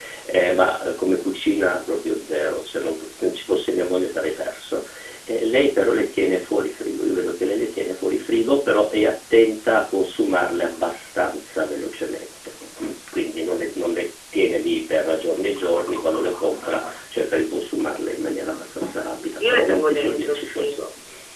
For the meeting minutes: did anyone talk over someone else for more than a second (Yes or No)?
Yes